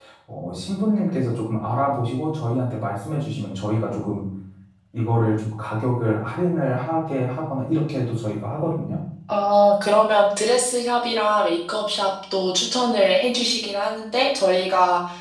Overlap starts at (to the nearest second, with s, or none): none